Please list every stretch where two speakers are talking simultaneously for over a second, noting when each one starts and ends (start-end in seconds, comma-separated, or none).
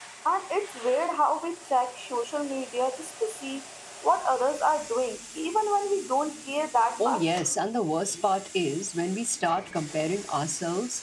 none